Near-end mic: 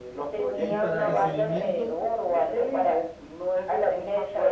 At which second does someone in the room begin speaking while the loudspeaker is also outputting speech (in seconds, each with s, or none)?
0.5 s